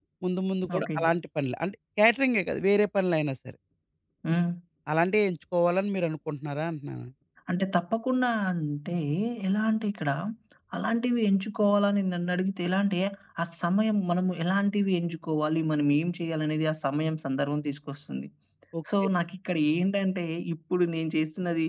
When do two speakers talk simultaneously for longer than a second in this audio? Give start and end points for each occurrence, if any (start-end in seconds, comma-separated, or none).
none